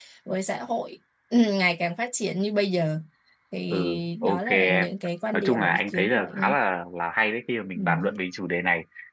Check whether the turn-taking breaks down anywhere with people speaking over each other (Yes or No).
Yes